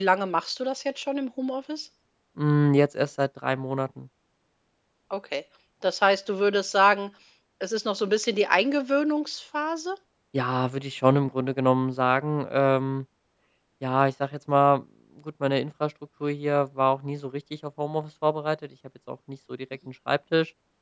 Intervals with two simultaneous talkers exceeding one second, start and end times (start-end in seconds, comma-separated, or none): none